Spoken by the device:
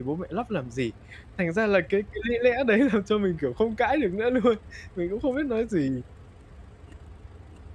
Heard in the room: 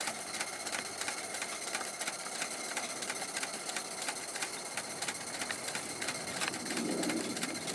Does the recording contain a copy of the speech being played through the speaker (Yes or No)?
No